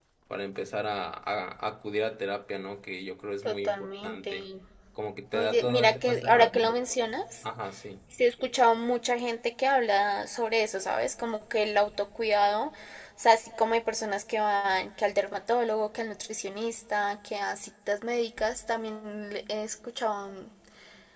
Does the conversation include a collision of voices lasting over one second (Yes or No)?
Yes